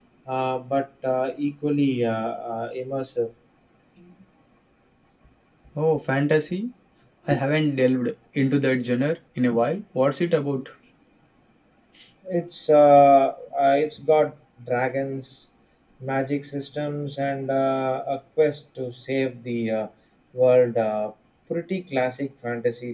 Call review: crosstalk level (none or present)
none